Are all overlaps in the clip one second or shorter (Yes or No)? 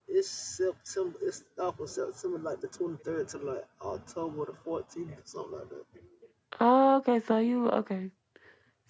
Yes